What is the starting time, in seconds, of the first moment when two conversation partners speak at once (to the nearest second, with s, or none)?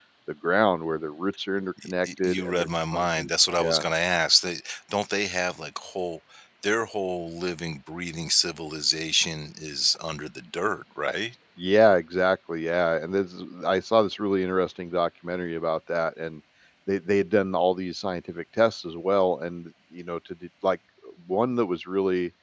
2 s